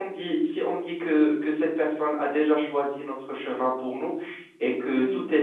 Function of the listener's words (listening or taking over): listening